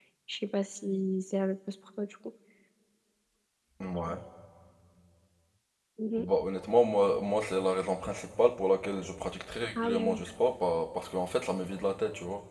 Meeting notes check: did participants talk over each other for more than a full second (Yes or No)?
No